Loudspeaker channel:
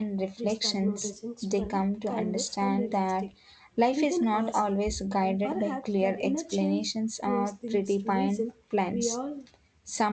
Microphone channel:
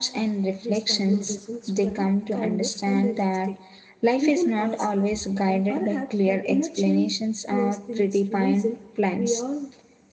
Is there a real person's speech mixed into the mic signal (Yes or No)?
No